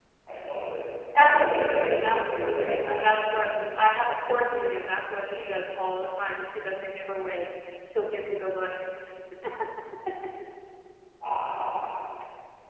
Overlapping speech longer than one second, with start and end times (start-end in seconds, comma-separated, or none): 1.1-3.6